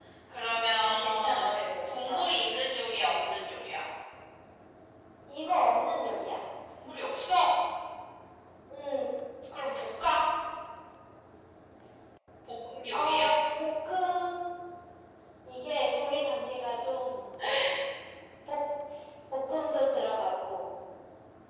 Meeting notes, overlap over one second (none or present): present